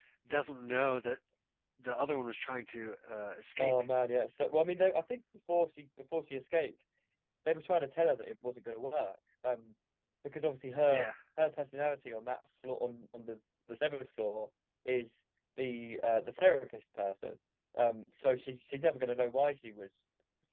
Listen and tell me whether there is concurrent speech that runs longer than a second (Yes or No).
No